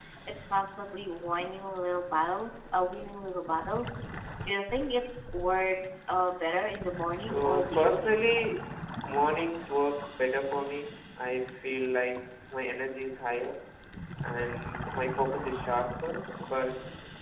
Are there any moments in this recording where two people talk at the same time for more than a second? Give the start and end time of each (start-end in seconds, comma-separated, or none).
7.1-8.3